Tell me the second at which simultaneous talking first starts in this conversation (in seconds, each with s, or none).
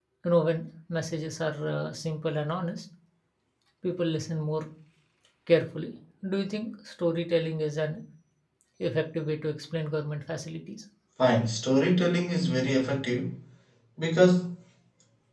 none